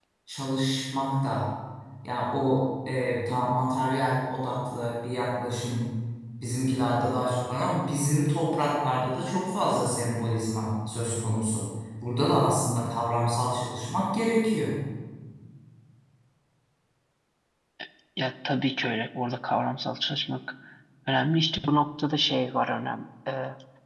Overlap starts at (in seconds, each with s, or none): none